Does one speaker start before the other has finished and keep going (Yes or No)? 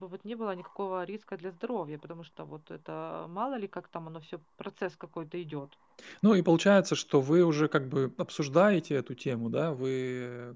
No